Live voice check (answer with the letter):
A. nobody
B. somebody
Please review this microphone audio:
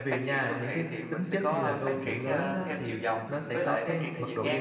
B